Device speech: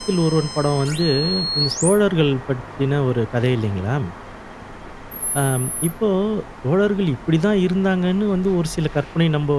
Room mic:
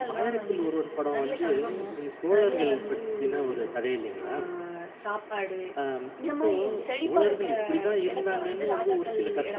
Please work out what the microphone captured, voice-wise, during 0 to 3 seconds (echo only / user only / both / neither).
both